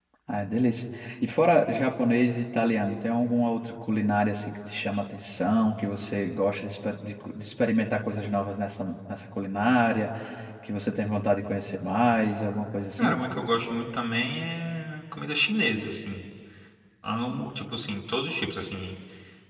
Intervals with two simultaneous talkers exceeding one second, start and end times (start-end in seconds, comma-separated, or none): none